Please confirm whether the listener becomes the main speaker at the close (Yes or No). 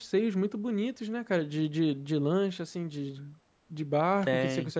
No